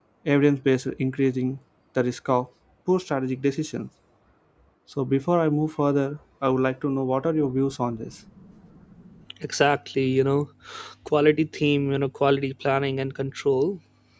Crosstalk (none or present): none